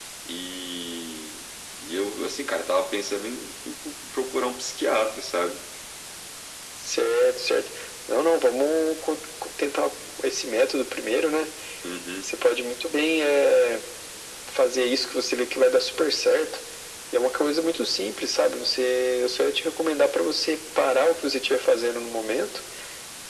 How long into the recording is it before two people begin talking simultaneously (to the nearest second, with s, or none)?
none